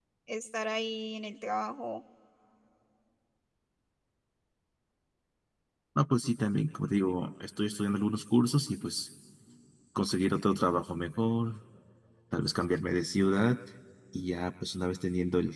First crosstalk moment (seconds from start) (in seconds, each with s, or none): none